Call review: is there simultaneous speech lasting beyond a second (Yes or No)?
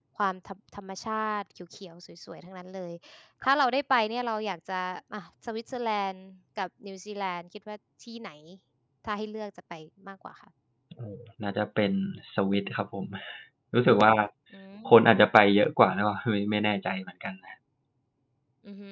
No